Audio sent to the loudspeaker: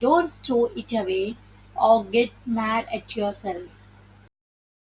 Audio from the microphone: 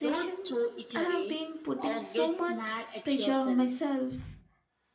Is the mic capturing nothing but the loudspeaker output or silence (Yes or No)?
No